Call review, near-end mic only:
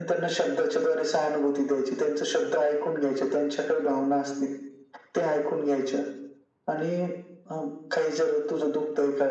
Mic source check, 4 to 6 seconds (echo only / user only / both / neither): echo only